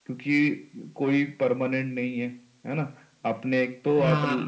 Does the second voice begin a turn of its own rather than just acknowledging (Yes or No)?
No